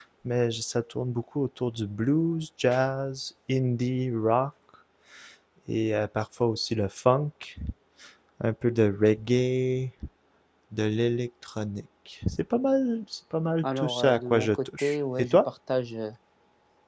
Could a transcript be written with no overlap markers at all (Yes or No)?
No